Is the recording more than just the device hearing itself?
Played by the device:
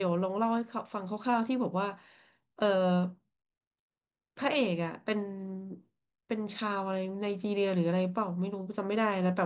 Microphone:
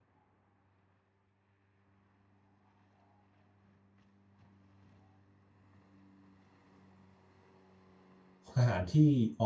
Yes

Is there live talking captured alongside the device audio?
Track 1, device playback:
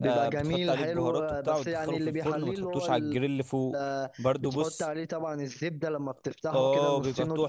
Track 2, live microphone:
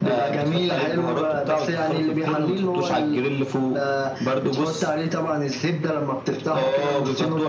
No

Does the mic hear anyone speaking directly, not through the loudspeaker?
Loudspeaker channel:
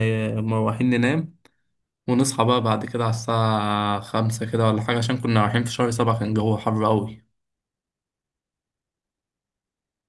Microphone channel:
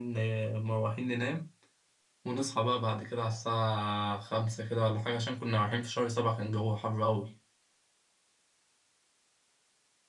No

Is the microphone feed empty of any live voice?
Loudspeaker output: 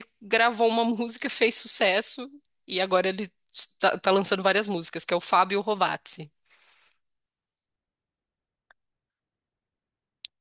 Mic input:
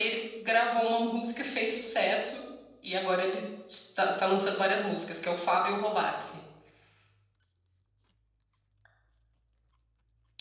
Yes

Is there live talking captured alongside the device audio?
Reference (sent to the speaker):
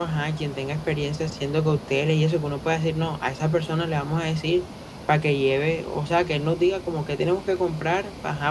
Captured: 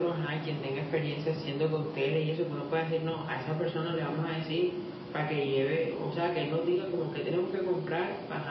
No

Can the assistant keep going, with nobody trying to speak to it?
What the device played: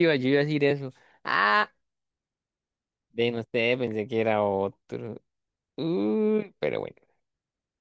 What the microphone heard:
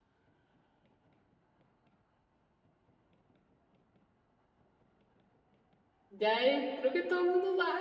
No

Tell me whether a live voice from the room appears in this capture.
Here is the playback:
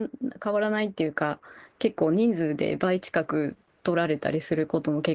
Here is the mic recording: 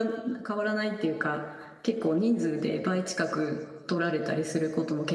No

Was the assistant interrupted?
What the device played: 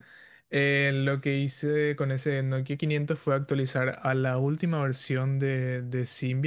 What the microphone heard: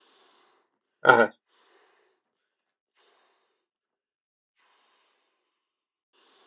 Yes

